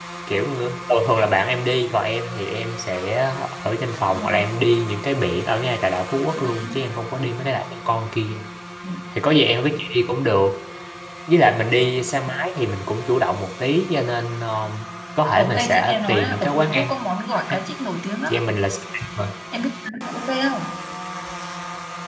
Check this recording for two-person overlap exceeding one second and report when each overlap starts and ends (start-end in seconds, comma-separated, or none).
15.3-16.9